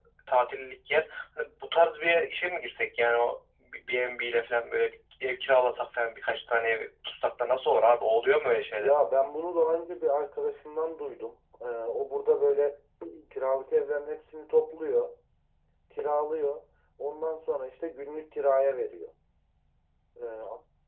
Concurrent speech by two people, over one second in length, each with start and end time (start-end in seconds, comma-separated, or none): none